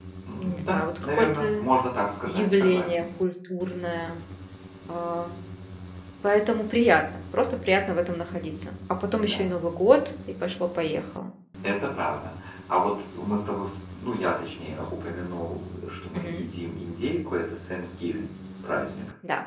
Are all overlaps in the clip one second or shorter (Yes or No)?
No